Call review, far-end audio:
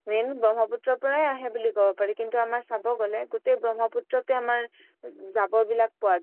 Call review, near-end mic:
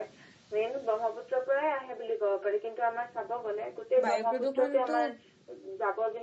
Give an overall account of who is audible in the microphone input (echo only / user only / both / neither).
both